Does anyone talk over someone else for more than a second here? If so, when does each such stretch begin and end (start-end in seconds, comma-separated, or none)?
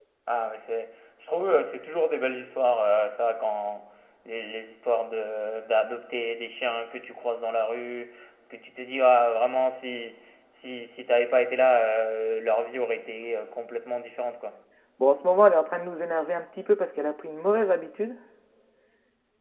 none